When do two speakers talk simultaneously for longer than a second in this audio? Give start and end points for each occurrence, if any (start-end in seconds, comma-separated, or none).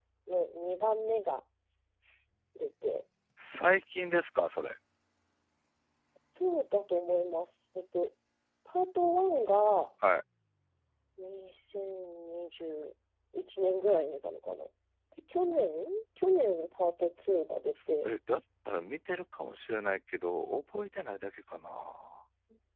none